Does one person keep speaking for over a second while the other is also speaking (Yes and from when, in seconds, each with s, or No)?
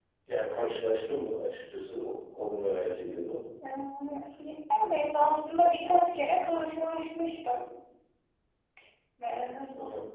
No